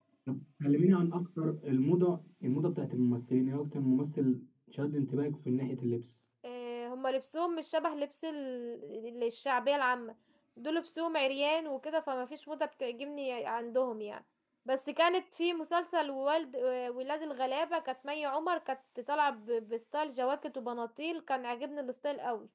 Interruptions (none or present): none